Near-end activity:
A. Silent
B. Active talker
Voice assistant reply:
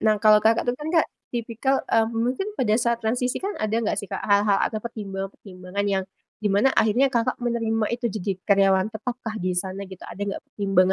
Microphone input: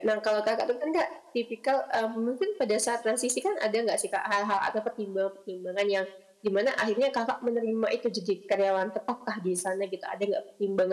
A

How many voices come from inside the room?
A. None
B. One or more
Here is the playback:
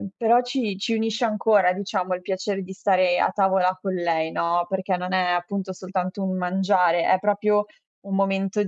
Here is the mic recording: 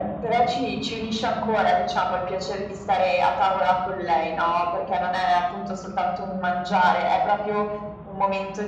A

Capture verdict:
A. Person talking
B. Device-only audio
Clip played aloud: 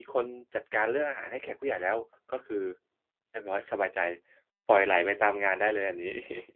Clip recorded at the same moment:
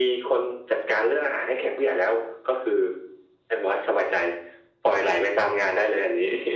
B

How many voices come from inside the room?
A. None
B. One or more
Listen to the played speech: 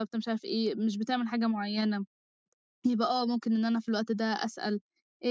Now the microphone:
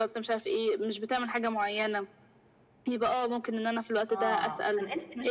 B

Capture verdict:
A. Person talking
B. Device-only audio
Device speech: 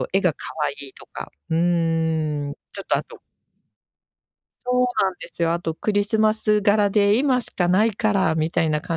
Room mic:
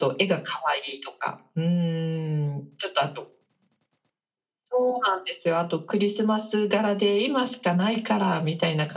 B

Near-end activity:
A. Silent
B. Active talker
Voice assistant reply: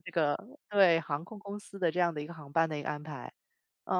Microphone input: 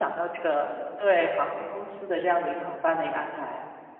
A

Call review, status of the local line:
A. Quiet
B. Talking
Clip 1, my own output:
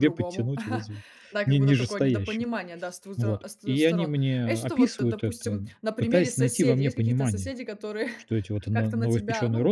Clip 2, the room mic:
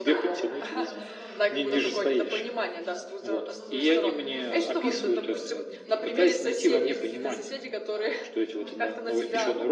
B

